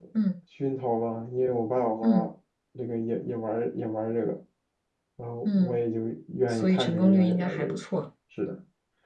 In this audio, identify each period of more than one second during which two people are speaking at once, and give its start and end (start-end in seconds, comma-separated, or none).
6.5-7.8